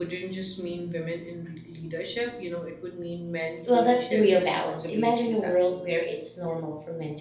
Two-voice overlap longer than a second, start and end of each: 3.7-5.8

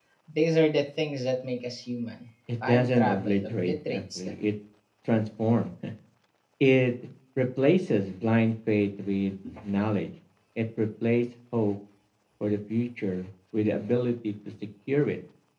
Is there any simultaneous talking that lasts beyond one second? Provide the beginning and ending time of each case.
2.7-4.3

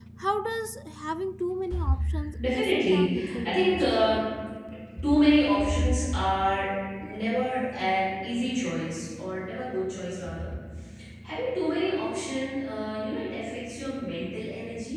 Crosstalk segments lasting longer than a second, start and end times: 2.5-3.9

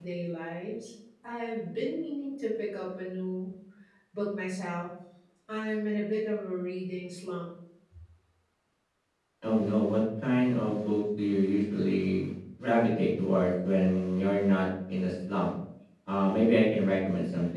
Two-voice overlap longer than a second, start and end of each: none

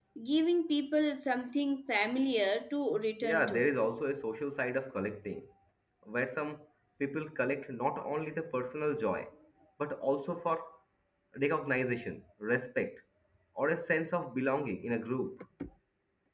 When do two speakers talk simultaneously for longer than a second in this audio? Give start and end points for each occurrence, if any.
none

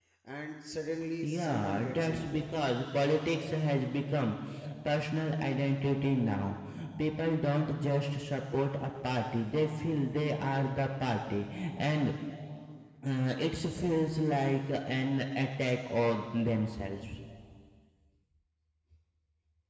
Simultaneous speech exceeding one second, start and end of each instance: 1.2-2.4

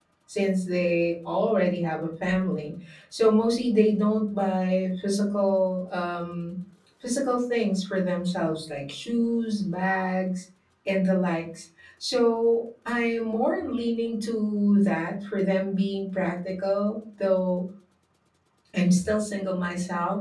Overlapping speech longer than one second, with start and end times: none

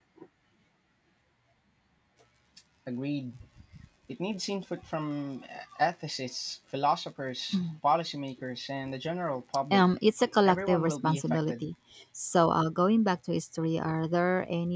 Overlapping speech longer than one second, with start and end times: 10.4-11.7

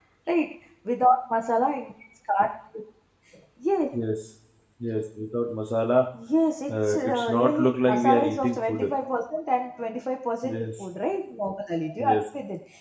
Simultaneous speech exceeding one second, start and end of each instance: 6.7-8.9

